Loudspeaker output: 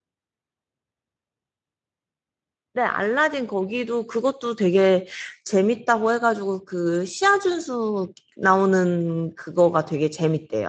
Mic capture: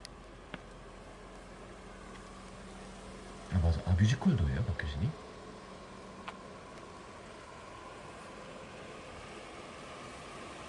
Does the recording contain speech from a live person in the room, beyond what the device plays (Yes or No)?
Yes